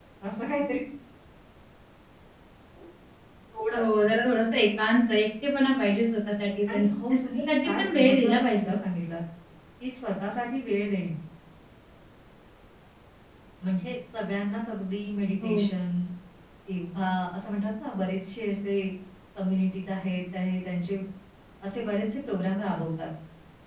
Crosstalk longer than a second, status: present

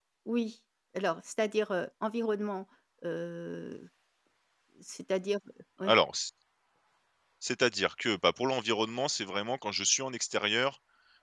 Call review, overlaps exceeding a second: none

